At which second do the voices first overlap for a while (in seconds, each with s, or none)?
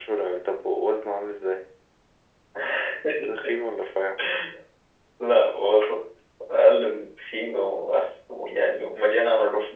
none